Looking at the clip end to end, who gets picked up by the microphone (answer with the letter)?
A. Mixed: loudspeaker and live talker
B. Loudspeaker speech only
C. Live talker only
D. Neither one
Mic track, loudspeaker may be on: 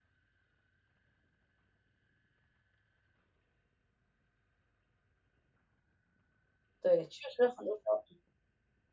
C